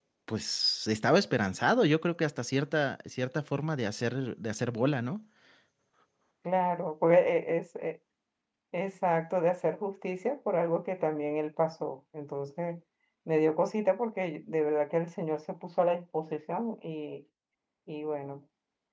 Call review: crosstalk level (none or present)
none